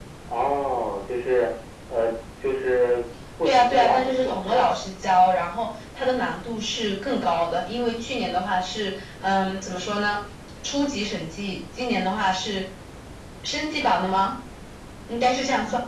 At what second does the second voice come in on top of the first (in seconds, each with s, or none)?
3.4 s